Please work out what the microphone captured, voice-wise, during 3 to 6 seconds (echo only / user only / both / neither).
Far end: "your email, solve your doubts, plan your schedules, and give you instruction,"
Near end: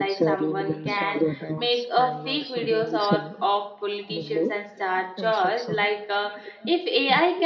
both